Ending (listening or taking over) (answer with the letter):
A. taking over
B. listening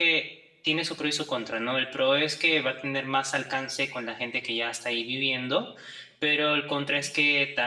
B